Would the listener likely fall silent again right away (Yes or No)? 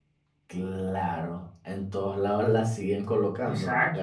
No